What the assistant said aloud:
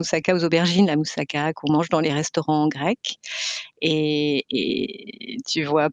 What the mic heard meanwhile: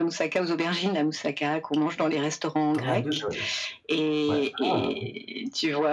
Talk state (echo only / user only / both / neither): both